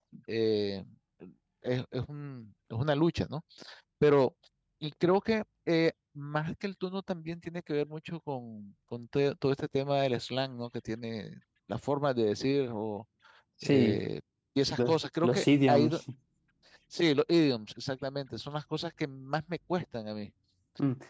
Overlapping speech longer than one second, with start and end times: 14.7-16.0

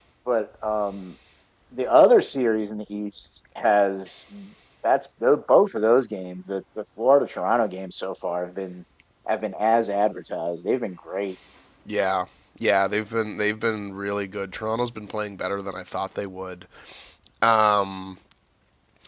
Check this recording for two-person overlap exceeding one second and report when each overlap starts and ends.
none

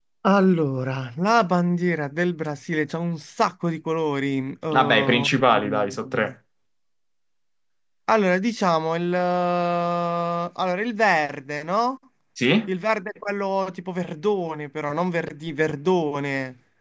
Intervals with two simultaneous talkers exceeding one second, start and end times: 4.7-6.3

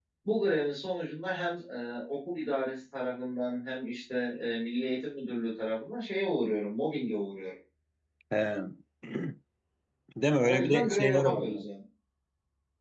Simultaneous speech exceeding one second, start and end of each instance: 10.4-11.6

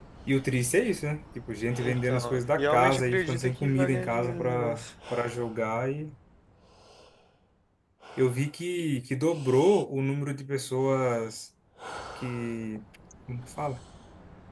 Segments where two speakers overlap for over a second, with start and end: 1.8-4.8

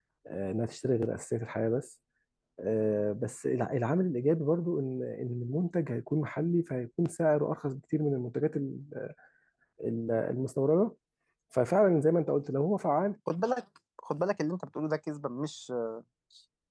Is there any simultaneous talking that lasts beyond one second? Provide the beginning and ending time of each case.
none

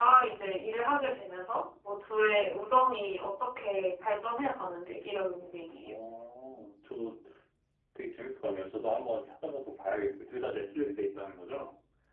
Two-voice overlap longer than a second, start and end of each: none

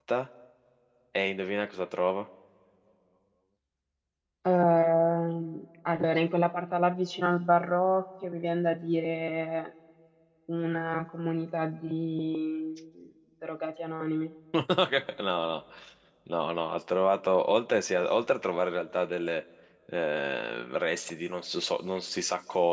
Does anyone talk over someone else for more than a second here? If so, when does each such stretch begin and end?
none

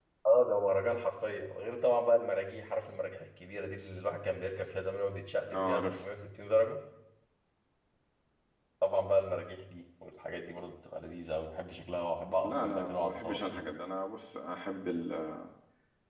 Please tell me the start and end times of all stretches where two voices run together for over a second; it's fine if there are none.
12.4-13.6

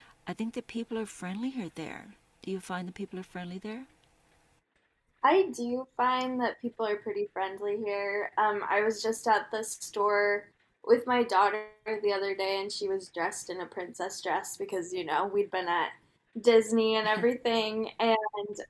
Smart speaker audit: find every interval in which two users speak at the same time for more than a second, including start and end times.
none

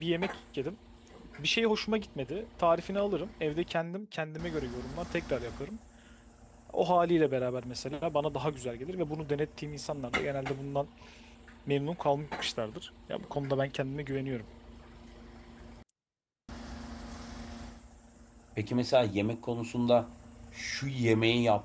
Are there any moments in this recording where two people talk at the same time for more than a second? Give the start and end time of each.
none

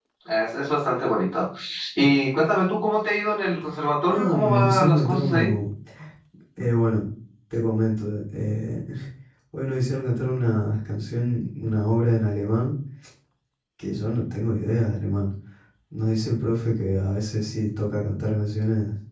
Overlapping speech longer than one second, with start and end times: 4.1-5.5

